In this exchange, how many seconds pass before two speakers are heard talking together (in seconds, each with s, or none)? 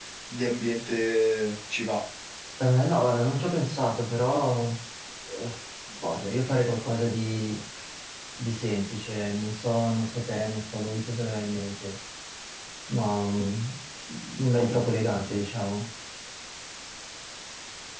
none